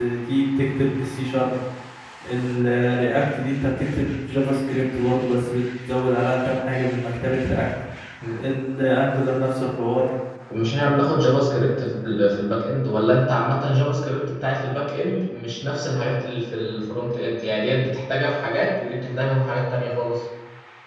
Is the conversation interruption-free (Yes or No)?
Yes